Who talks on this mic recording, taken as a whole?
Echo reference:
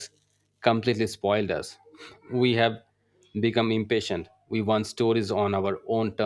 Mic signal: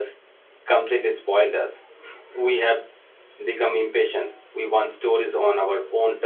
echo only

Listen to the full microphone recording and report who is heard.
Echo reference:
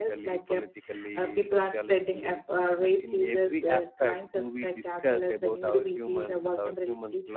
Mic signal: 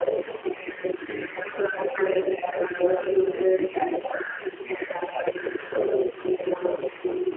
echo only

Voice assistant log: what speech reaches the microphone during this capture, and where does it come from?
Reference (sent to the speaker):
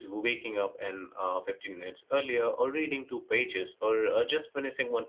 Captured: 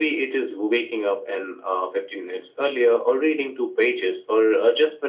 echo only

